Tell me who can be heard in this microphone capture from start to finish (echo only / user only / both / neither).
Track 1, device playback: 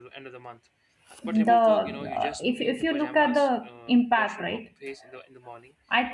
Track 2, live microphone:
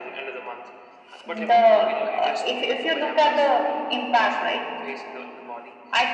echo only